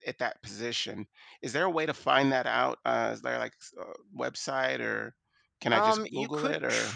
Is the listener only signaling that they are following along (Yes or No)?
No